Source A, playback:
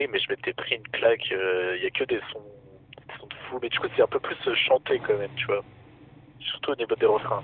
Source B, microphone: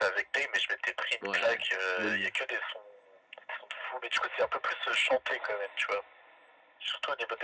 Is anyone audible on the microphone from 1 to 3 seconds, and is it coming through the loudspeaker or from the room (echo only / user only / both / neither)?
both